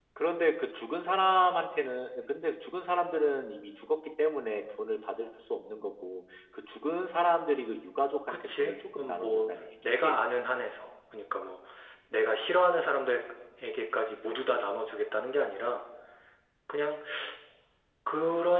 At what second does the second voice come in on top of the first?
8.3 s

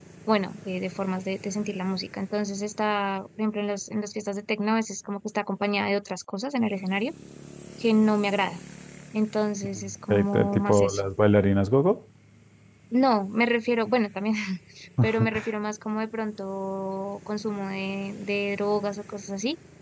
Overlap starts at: 9.7 s

